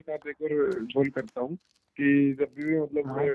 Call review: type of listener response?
listening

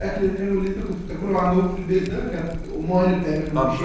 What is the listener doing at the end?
listening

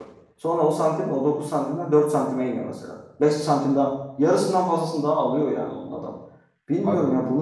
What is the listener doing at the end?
listening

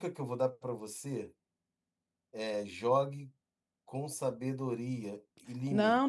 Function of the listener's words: taking over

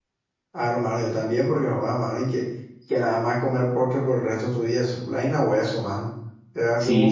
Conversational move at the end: listening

